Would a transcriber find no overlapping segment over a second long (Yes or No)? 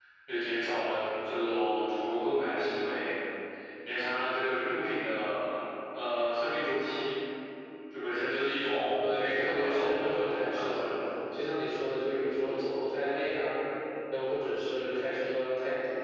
No